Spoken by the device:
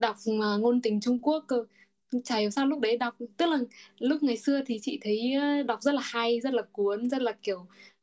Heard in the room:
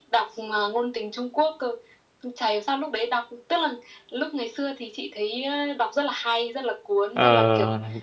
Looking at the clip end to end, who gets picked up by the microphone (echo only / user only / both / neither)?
both